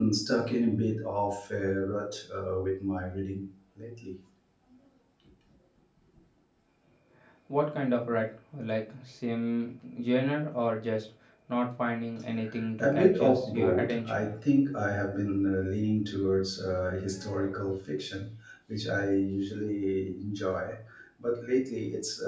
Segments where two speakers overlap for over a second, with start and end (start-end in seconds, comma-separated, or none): 12.8-14.2